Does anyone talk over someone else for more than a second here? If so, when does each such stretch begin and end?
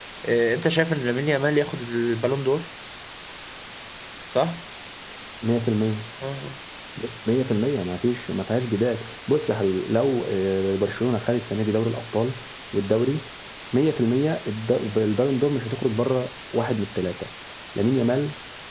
none

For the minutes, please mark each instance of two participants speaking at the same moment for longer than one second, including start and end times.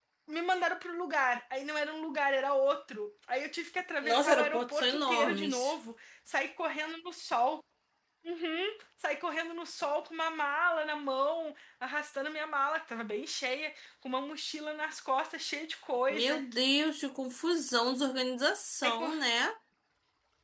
4.0-5.8

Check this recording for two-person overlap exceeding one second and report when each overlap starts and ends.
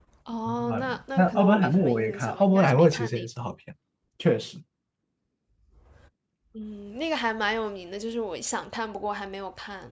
0.7-3.3

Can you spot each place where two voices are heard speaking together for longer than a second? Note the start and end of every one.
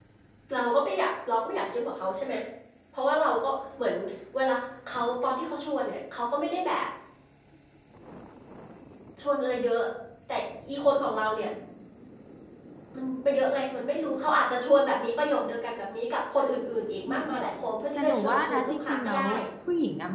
17.9-19.3

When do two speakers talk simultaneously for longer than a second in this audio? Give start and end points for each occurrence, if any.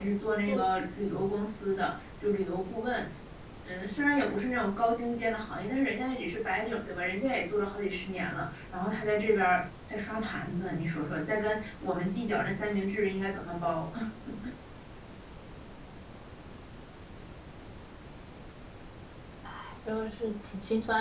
none

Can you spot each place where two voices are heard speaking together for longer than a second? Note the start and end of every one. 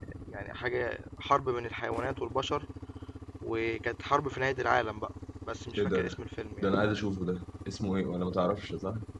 none

